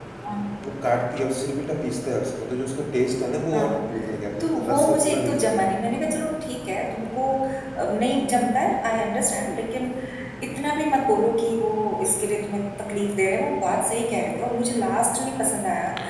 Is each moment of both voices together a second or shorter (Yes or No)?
No